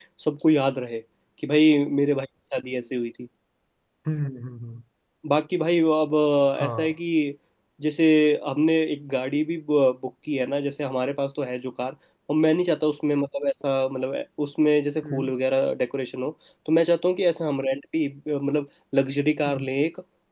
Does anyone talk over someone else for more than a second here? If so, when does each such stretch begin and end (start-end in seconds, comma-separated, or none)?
none